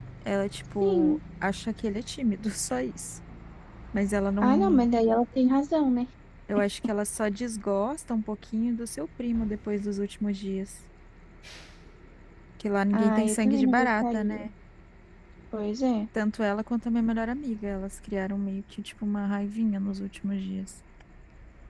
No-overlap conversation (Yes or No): No